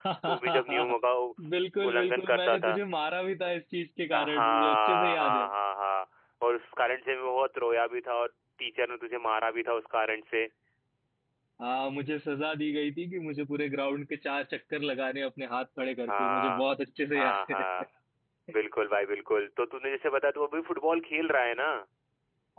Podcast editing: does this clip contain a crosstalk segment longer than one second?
Yes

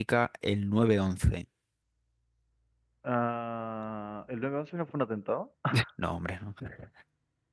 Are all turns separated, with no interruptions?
Yes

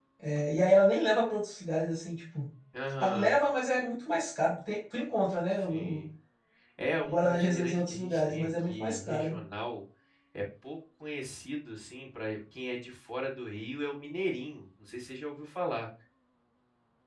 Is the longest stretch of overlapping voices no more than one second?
No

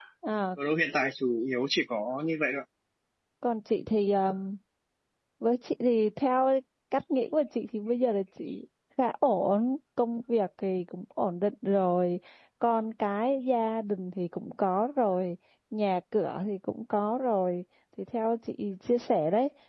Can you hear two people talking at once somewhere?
No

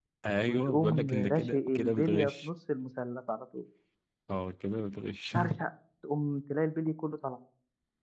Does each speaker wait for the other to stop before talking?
No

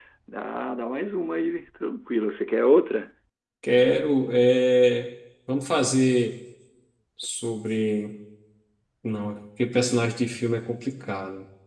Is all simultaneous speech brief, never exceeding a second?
Yes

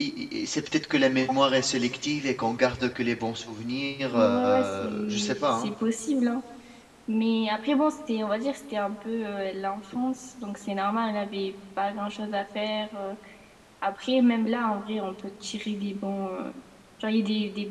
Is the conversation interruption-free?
No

